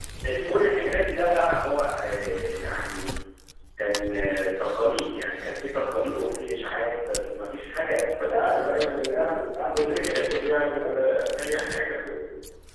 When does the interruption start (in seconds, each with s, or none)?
8.3 s